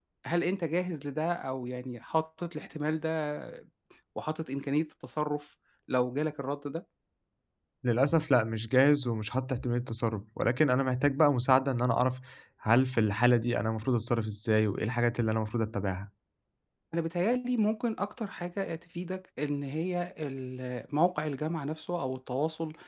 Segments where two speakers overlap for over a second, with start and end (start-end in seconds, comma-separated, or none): none